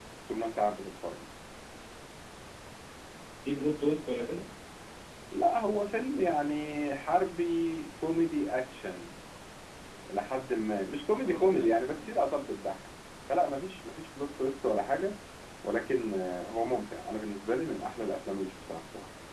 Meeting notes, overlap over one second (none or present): none